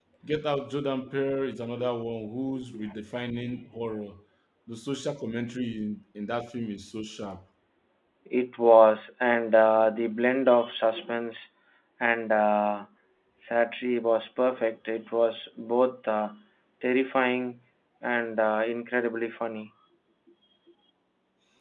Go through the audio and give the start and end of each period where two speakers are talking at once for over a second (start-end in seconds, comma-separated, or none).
none